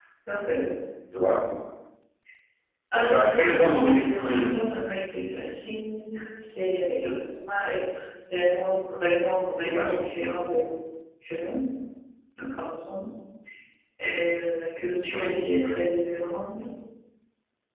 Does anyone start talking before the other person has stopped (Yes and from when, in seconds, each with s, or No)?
Yes, from 3.1 s